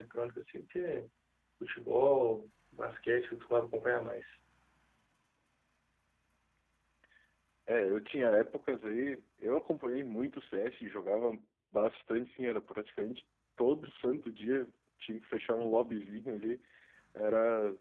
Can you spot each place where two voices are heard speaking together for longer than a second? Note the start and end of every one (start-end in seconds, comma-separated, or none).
none